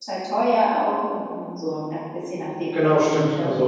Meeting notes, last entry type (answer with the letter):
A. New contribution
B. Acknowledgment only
A